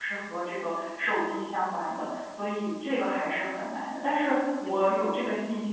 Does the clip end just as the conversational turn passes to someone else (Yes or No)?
No